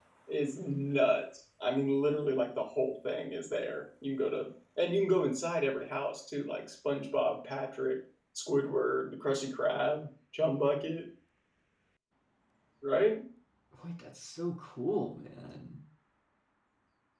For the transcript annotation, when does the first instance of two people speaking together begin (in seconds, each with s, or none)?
none